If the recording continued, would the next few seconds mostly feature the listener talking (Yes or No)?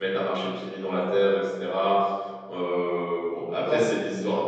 No